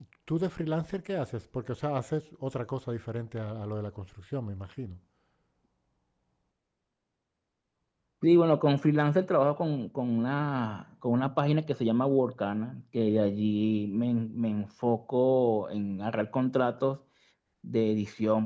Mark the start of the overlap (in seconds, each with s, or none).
none